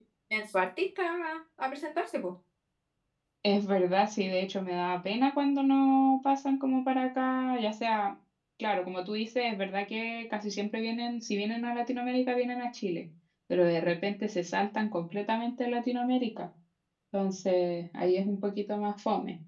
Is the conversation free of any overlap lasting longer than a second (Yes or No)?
Yes